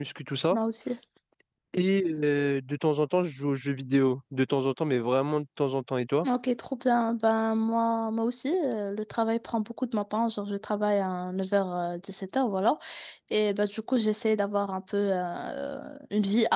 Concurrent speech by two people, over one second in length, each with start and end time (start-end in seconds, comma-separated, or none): none